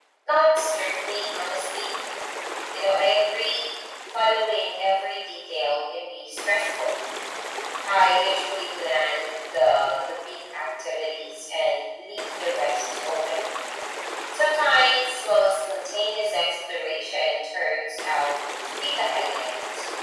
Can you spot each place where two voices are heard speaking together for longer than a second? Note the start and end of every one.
none

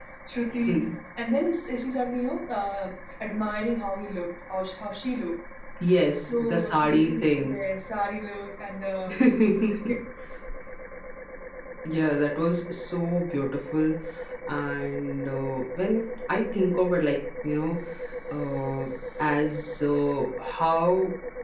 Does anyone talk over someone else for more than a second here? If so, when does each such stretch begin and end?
6.3-7.6

